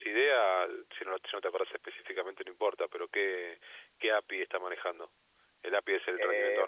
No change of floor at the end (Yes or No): No